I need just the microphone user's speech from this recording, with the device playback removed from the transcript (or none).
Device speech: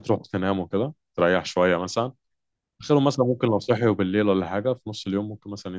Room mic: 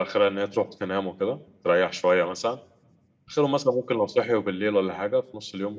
none